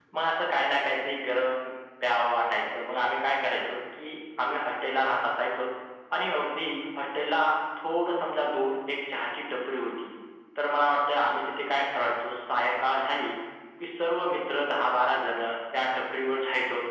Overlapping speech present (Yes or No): No